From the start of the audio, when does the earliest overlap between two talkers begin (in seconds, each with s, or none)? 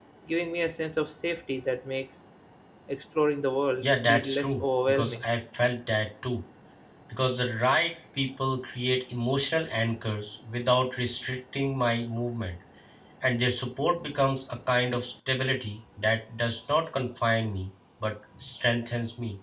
3.8 s